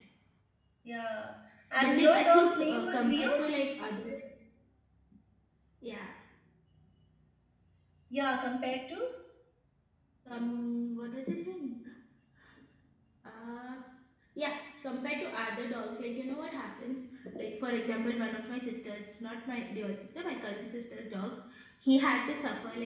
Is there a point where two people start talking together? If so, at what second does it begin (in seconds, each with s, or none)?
1.8 s